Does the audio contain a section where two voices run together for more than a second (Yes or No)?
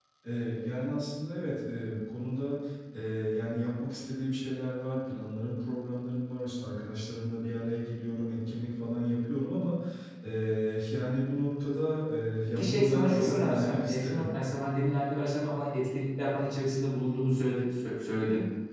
Yes